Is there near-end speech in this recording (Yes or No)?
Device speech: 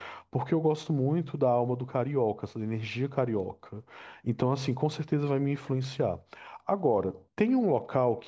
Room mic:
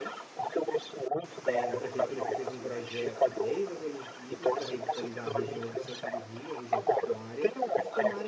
Yes